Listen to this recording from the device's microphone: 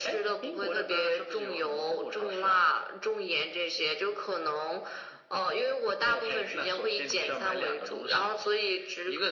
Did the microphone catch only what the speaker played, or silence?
Yes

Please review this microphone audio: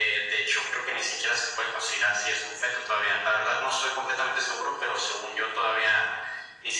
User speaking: No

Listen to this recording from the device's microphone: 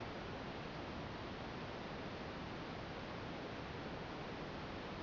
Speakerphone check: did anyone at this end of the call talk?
No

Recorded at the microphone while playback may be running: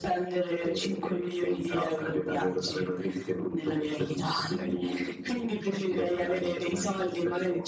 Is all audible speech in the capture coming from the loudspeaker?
Yes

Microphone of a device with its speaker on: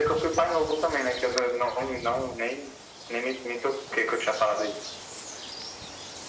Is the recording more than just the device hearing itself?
No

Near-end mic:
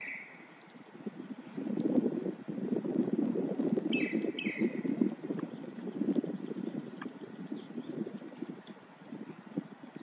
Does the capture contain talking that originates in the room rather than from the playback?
No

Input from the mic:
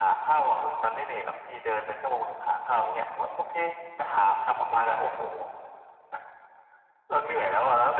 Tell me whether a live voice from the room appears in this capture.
No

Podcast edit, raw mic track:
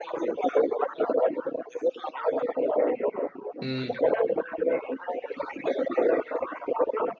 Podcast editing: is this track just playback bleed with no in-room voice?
No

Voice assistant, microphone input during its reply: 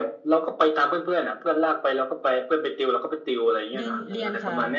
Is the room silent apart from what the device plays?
No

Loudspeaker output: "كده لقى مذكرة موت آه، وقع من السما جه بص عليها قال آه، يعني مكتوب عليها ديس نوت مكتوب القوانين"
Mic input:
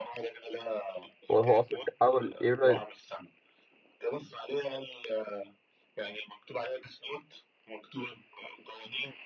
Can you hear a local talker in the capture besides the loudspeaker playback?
Yes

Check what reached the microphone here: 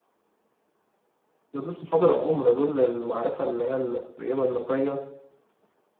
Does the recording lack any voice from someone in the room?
No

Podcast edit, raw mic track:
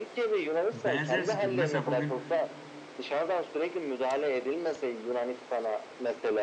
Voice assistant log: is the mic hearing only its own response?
No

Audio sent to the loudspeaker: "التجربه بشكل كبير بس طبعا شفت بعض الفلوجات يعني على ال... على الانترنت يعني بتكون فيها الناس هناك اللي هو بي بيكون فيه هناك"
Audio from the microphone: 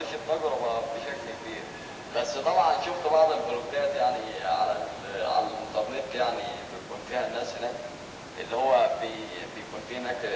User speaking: No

